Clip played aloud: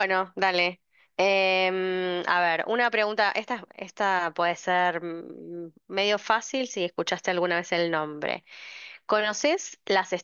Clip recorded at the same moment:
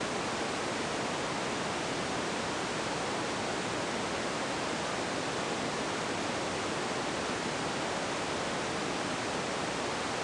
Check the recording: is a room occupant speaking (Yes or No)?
No